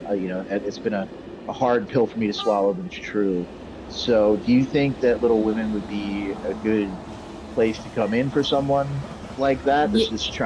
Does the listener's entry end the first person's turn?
No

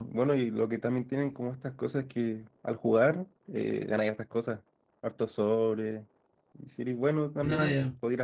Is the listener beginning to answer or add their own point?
No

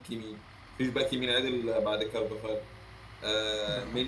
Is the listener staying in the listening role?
Yes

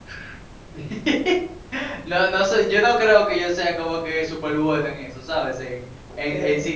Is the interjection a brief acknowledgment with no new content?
Yes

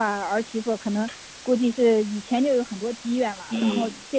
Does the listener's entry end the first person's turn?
No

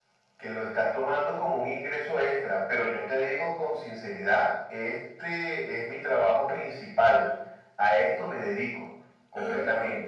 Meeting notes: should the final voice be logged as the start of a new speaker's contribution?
No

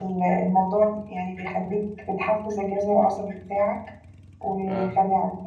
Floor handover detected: No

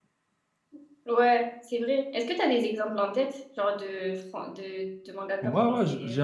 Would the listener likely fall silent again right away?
No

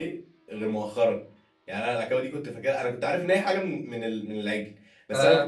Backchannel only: Yes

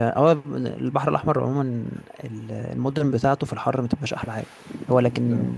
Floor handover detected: No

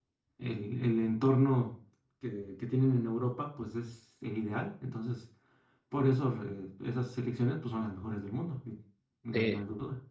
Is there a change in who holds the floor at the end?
Yes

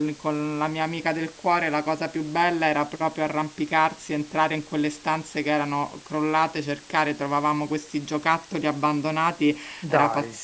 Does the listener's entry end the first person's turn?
No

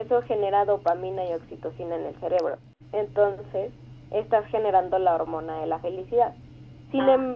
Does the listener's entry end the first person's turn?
No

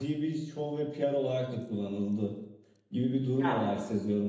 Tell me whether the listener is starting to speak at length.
No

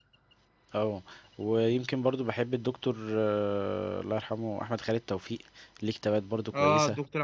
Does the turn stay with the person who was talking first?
No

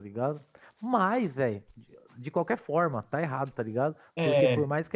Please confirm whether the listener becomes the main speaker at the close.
No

